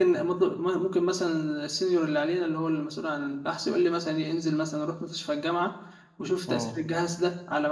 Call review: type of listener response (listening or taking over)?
listening